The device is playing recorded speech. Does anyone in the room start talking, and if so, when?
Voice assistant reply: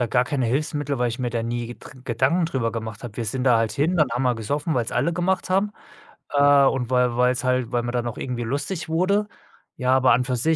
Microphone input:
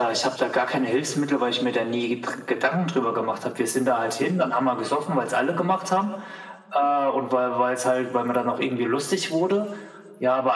none

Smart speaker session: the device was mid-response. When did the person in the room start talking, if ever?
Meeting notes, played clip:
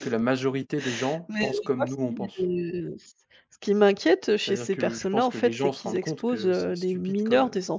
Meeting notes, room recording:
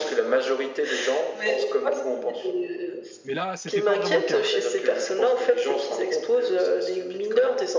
3.2 s

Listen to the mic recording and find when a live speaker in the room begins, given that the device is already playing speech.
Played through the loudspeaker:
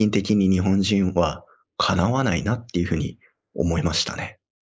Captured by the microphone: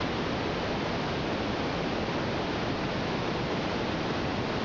none

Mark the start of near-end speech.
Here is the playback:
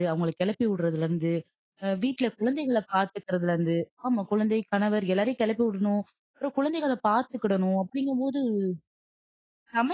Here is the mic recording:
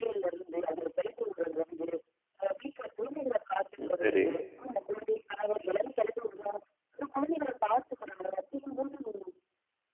3.8 s

